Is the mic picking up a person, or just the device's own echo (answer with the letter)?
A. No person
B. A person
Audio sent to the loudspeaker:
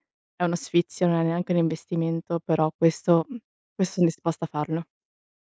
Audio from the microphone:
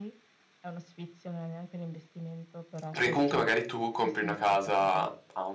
B